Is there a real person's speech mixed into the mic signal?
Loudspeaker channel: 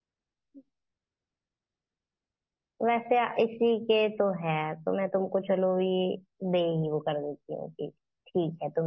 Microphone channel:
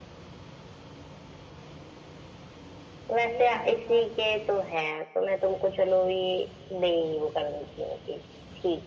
Yes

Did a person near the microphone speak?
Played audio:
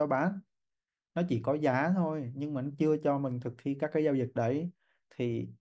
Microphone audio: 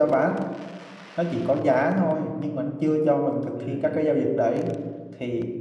Yes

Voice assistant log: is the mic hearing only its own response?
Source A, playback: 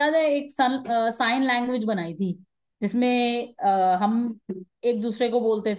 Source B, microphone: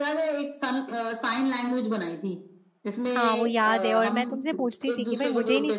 No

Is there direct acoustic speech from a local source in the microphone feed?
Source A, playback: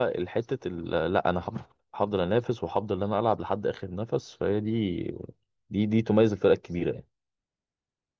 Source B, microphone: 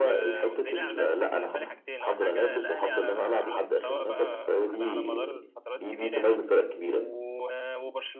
Yes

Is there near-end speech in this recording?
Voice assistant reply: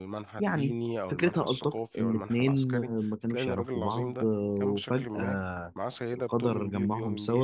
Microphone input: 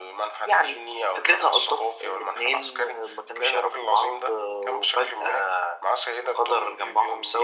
No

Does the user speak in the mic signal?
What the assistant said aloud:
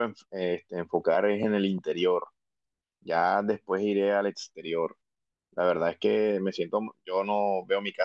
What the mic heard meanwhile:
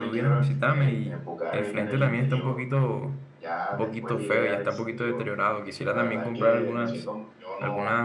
Yes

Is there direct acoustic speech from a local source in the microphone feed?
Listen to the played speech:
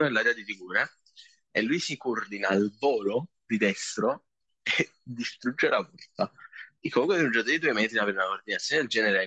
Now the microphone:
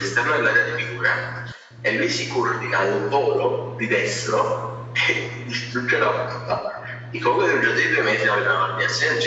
No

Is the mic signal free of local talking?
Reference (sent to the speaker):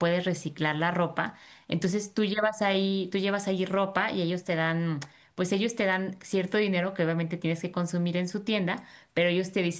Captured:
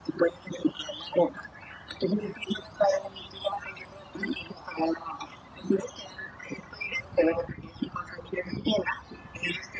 Yes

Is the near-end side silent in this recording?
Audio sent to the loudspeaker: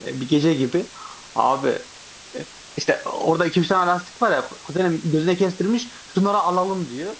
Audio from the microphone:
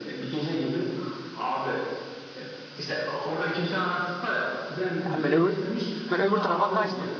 No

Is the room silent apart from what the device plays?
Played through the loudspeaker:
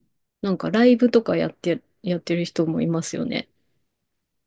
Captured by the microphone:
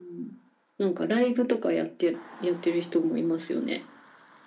Yes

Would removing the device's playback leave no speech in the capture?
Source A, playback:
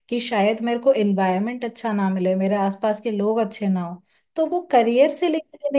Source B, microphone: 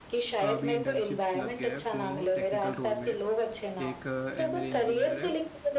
No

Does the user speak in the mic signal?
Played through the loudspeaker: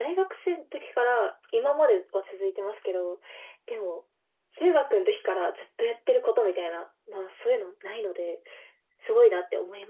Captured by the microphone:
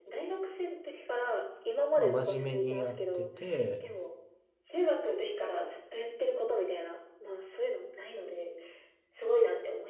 Yes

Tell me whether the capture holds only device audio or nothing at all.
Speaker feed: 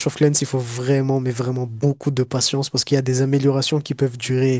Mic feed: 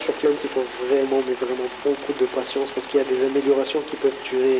Yes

